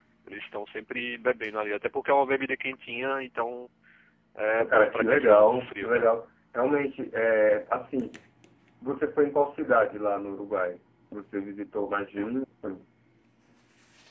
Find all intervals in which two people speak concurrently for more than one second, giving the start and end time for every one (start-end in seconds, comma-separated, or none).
4.5-6.0